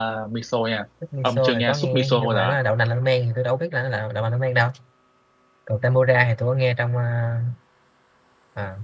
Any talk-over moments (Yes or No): Yes